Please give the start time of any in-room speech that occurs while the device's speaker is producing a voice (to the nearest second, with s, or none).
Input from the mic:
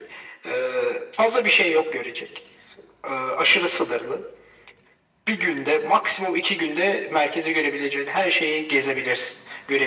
none